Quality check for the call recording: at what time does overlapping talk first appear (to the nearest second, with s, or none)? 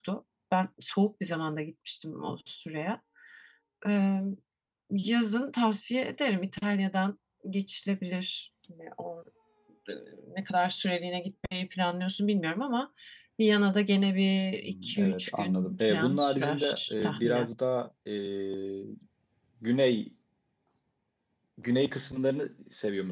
15 s